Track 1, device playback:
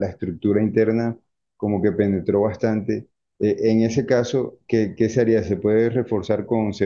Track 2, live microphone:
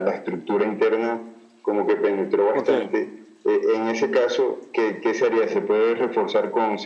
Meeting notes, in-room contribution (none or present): present